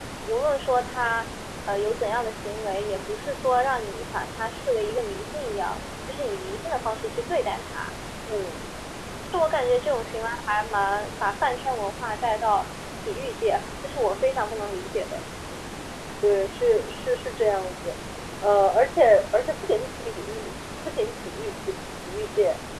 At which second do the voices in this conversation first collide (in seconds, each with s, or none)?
none